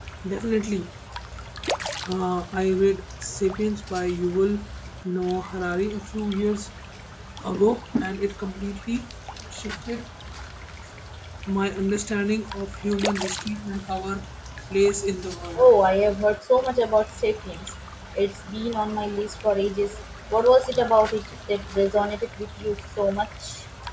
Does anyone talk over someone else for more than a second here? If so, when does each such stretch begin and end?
none

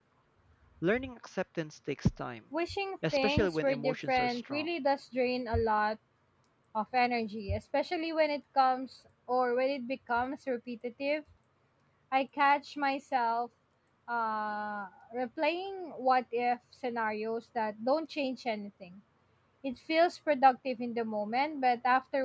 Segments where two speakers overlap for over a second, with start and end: 3.1-4.7

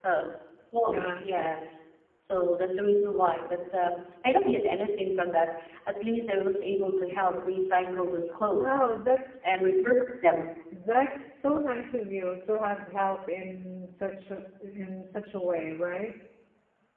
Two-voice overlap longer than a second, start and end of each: none

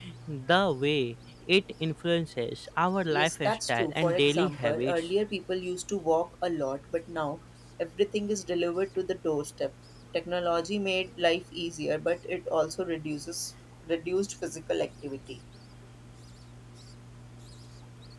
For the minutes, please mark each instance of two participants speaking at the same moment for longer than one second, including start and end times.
3.1-5.1

